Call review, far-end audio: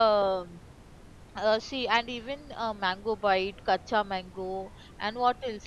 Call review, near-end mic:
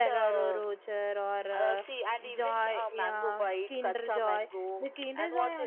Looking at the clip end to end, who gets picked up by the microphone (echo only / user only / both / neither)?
both